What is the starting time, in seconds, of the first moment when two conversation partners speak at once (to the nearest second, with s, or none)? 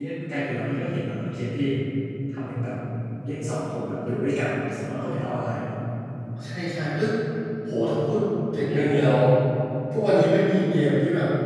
none